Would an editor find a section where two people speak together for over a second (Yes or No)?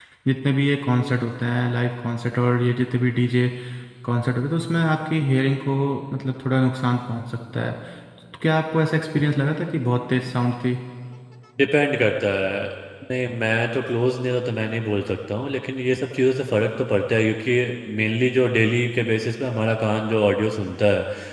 No